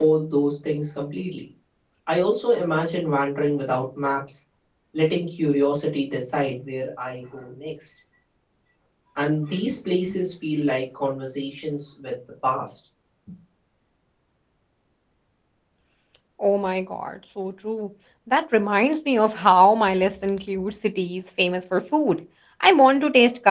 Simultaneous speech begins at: none

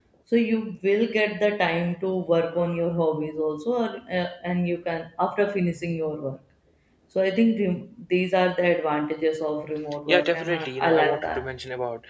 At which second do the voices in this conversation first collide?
10.1 s

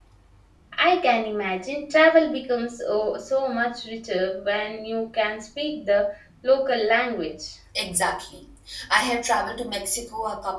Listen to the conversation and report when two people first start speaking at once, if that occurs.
none

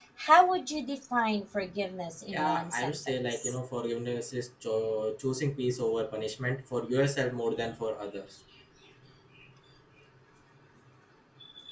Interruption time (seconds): 2.3 s

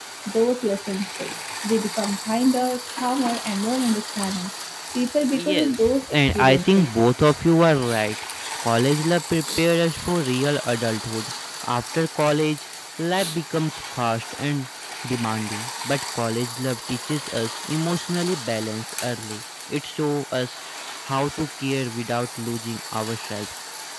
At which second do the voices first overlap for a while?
5.4 s

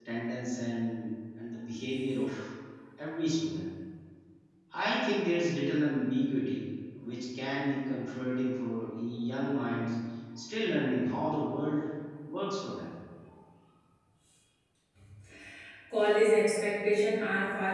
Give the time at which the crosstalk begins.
none

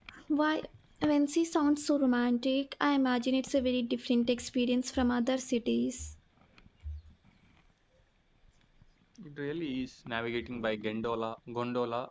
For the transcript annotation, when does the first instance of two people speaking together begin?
none

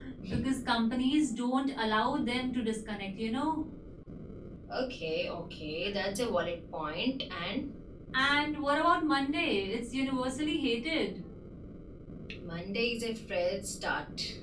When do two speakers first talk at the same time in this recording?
none

